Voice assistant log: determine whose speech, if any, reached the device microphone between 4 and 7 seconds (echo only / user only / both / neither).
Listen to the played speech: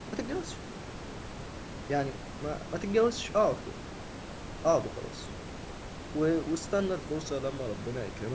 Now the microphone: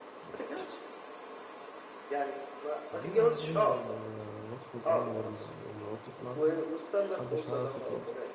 both